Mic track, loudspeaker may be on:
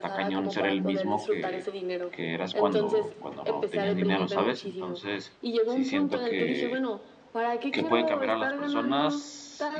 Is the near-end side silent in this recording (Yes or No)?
No